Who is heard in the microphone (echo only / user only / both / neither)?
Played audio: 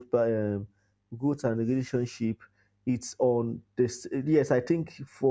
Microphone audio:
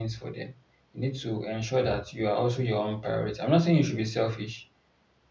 user only